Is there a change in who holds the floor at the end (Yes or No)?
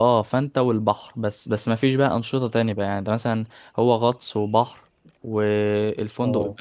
No